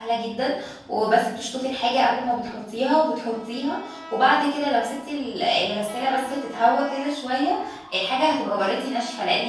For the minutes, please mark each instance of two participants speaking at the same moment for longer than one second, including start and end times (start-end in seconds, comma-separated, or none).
none